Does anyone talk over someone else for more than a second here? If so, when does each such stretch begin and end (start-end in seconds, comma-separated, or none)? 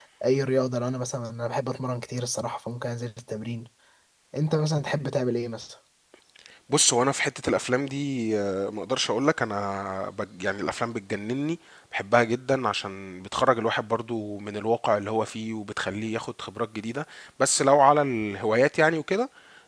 none